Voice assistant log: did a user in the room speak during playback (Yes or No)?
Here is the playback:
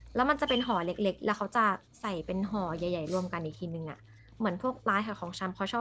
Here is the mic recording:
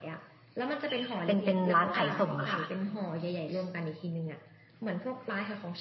Yes